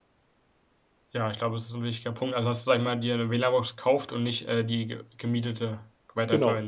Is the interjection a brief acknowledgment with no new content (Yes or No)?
No